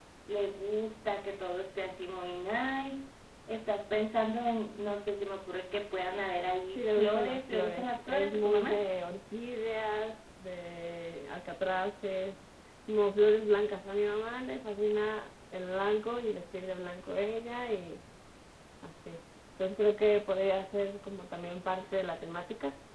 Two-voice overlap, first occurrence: 6.8 s

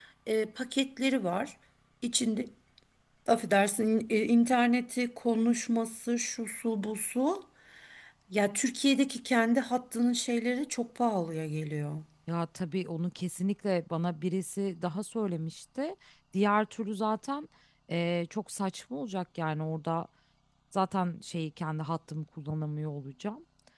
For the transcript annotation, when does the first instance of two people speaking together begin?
none

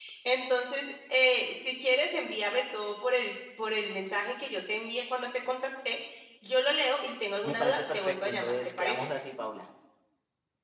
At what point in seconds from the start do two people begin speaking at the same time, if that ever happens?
7.4 s

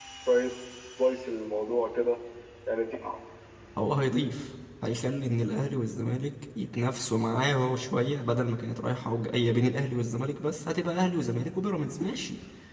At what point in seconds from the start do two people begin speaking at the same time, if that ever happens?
none

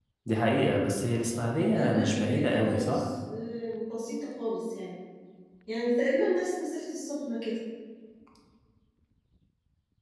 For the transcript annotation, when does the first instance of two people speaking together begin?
1.7 s

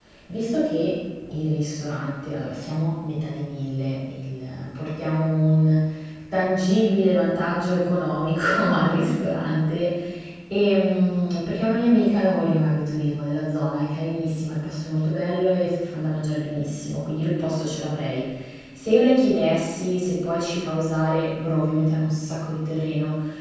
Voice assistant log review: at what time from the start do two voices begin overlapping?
none

